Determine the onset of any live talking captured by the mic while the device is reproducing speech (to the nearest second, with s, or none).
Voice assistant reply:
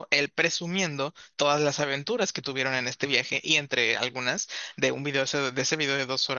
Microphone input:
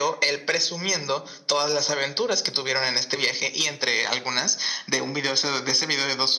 none